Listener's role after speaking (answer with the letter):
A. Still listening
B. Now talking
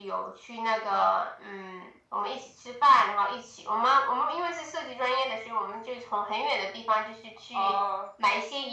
A